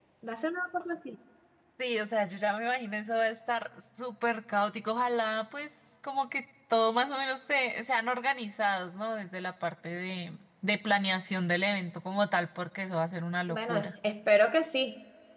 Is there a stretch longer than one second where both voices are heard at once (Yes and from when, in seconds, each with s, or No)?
No